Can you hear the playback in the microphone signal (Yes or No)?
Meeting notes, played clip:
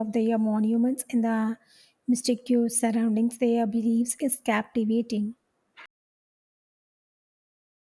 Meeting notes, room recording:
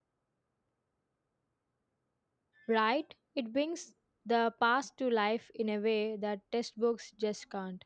No